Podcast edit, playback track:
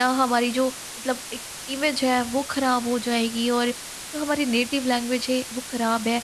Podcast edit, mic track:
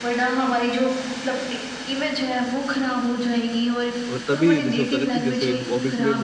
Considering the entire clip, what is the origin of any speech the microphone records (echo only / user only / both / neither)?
both